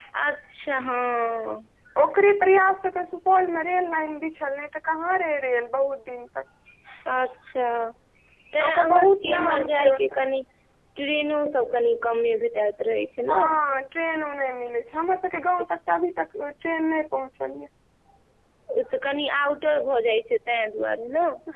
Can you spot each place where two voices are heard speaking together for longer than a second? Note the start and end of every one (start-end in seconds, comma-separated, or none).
8.6-10.2